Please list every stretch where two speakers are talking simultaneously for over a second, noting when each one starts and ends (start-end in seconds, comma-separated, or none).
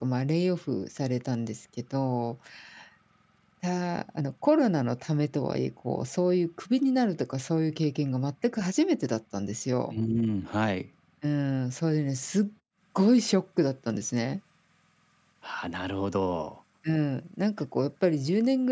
none